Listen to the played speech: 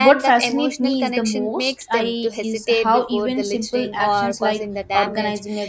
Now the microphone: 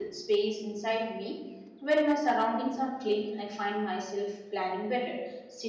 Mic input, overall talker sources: user only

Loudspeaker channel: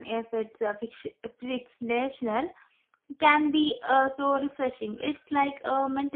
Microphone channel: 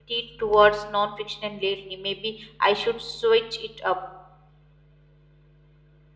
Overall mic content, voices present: user only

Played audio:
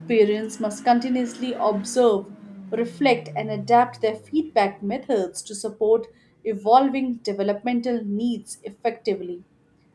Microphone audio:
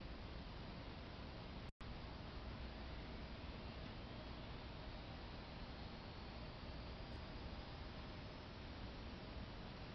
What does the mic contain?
neither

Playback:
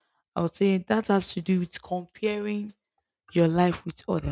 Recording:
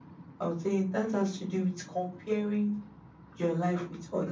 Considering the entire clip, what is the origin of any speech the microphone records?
echo only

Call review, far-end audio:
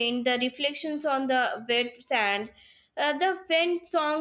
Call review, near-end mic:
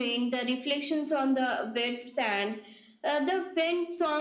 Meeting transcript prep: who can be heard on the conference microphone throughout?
echo only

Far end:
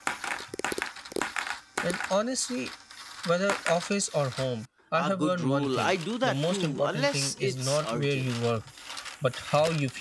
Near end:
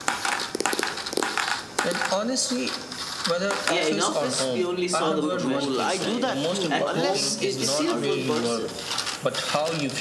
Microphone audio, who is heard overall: both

